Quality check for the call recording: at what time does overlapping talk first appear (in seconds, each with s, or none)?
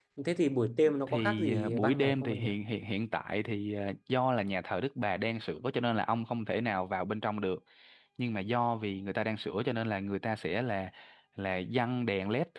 1.1 s